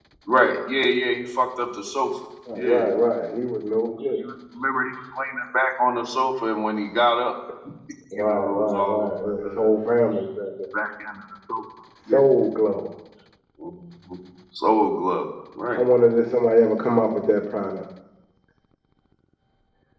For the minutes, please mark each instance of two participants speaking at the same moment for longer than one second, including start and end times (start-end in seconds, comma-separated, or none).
8.1-9.7